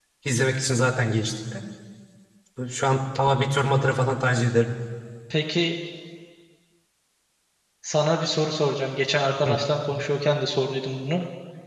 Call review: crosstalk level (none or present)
none